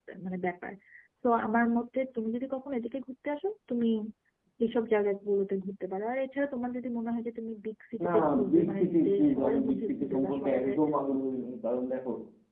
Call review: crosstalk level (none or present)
present